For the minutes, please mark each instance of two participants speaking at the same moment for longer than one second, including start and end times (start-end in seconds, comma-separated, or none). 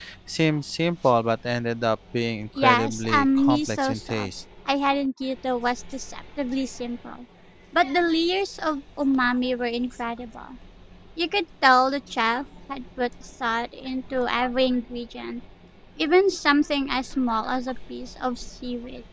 2.6-4.3